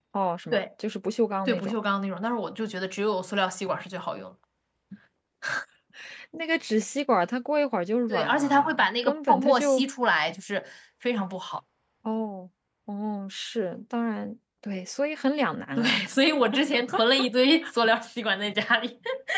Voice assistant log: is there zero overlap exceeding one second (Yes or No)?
No